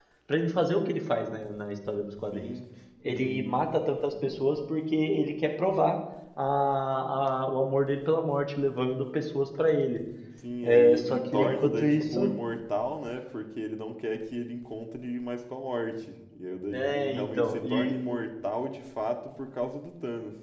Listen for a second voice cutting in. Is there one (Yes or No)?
Yes